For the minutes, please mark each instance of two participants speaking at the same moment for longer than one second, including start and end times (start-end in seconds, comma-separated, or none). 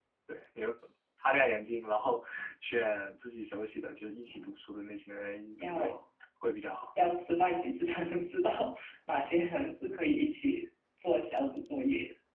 none